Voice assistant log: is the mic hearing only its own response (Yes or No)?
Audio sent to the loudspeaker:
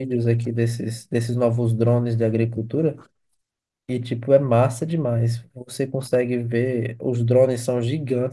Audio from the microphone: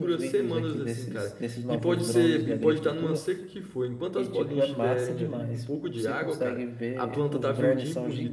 No